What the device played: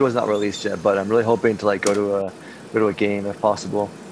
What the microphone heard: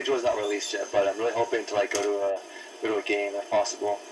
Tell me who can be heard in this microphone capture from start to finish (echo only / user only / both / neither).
echo only